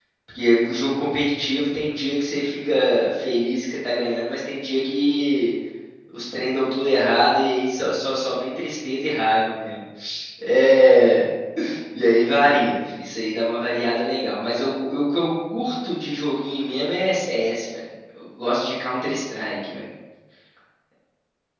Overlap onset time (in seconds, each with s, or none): none